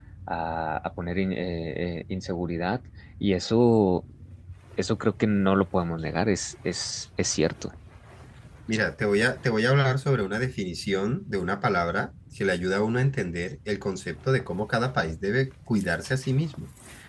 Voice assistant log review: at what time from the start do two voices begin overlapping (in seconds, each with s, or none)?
none